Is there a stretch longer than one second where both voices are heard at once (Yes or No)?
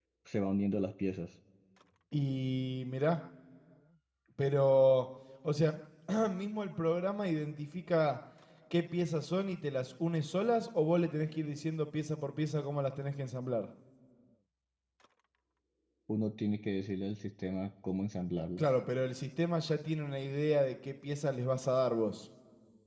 No